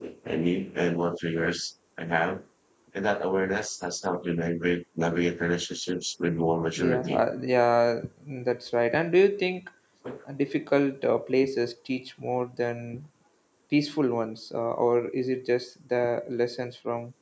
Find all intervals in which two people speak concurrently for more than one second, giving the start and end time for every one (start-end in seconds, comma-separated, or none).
none